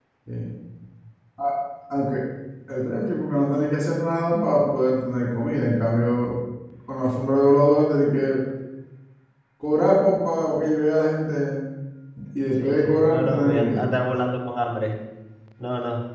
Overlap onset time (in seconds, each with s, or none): 12.6 s